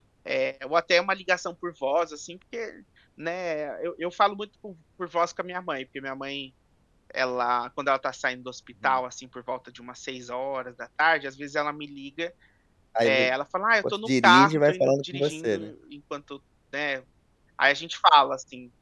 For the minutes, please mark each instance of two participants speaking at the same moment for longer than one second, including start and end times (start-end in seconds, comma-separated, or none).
13.9-15.7